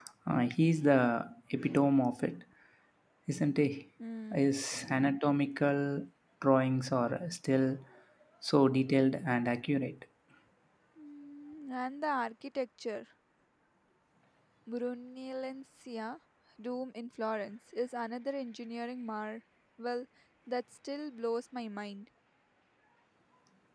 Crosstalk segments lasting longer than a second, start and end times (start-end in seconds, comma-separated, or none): none